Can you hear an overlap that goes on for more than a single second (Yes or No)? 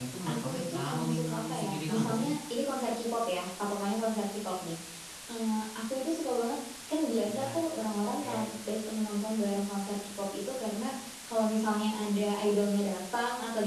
Yes